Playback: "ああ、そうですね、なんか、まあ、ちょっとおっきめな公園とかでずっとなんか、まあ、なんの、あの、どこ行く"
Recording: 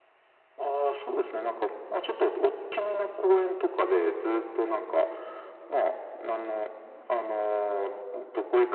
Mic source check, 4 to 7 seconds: echo only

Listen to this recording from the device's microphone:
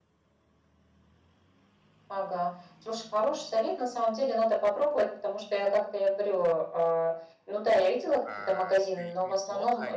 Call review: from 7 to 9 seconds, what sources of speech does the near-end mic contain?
both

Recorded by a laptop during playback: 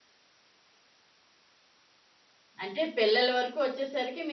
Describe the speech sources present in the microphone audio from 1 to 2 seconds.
neither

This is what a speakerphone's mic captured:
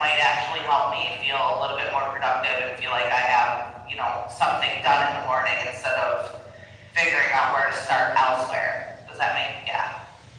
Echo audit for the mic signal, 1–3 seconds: echo only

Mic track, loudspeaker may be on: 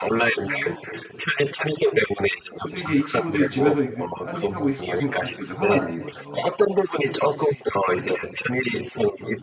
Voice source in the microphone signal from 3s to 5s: both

